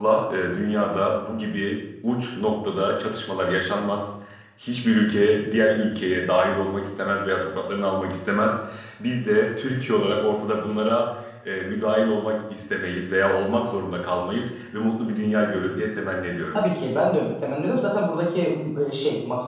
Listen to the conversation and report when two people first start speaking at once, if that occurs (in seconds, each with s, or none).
none